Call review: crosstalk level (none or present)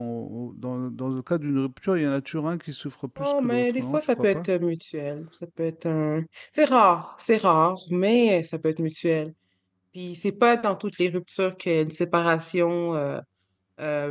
present